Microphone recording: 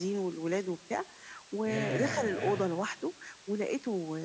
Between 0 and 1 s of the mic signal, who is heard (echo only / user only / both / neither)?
echo only